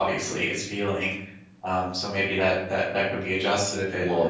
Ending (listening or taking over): taking over